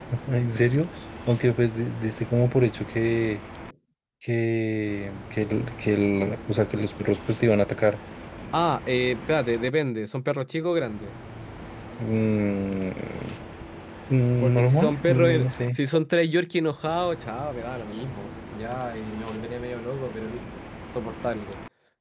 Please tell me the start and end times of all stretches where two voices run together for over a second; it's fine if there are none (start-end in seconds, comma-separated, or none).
14.4-15.8